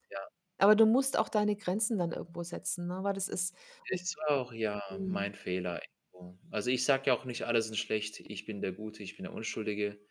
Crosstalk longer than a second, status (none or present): none